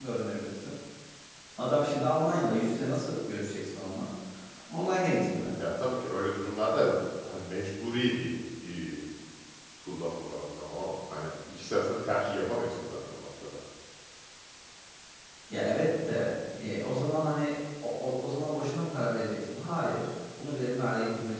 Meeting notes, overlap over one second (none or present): none